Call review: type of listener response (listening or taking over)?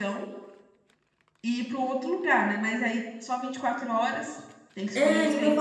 taking over